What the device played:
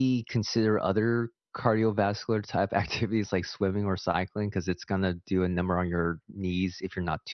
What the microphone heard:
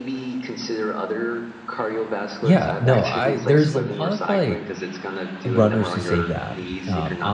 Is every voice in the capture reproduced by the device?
No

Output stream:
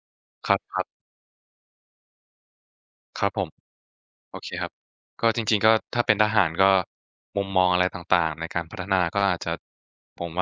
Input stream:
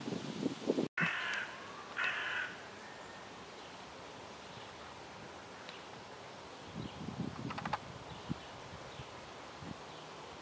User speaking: No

